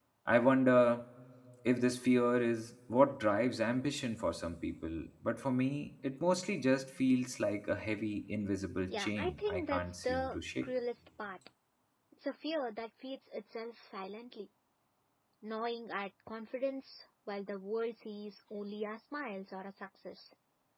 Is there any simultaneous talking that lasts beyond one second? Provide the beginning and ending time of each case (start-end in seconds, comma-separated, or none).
8.9-10.7